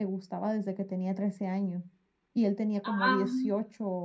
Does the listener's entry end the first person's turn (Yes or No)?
No